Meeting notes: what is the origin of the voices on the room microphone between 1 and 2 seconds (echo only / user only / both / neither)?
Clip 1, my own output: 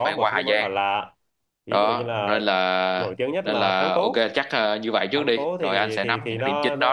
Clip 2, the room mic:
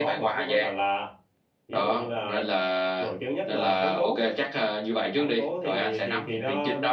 echo only